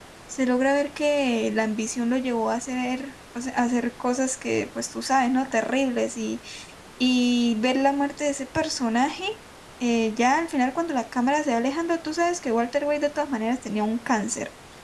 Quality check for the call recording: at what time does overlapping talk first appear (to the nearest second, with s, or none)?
none